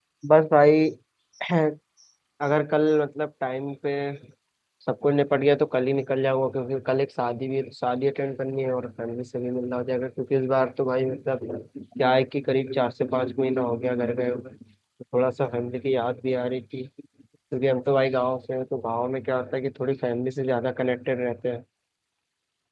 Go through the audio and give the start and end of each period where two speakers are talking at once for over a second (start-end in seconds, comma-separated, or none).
none